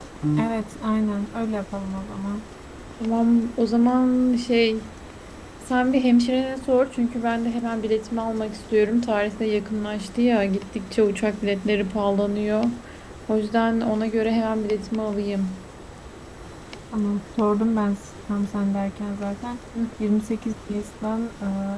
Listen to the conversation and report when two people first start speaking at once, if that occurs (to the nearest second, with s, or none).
none